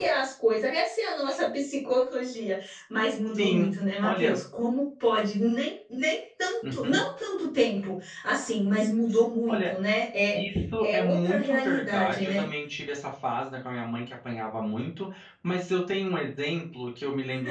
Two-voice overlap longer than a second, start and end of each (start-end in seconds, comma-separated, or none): 10.8-12.4